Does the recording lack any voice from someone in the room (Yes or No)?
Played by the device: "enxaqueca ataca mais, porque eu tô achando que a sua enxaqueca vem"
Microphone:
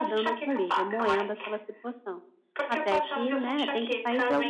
No